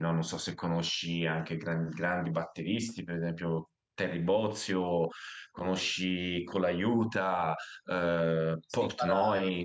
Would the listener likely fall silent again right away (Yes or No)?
No